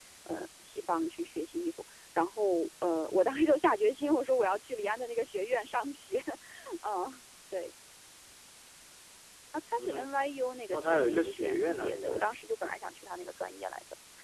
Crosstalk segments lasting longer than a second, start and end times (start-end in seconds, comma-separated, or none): 10.7-12.3